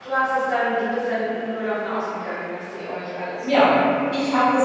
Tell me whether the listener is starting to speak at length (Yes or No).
Yes